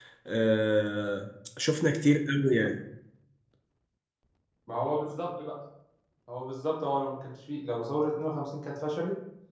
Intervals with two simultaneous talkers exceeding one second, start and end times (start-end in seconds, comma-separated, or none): none